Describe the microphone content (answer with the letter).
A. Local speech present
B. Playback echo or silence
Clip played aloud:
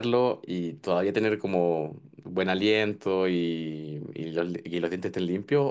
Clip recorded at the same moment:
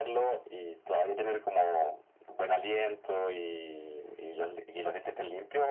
B